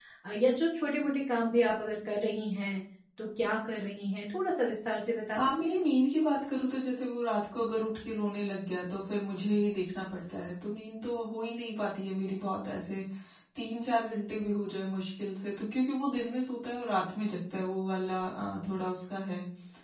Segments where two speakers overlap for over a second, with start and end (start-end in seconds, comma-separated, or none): none